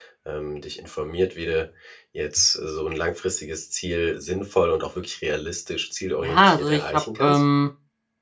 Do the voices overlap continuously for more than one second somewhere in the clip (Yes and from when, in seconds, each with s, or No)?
Yes, from 6.2 s